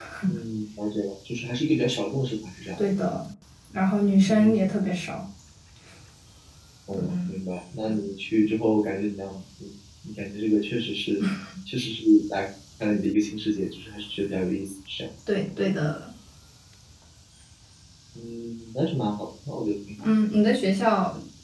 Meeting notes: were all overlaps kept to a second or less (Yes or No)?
Yes